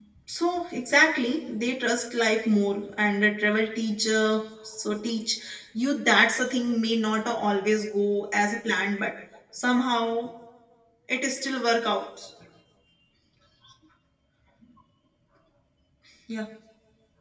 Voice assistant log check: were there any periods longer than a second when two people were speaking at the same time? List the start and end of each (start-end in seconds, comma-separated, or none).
none